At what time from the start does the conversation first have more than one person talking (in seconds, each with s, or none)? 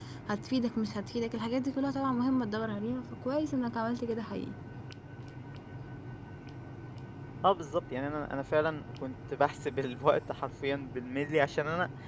none